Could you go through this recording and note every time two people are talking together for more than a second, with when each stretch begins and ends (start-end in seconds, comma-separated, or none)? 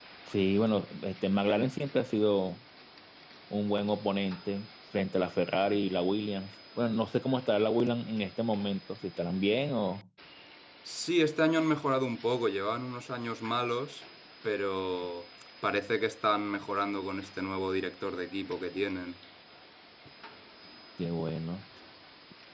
none